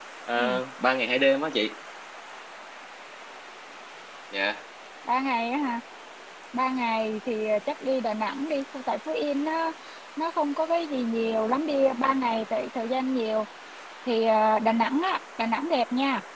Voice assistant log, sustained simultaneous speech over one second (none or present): none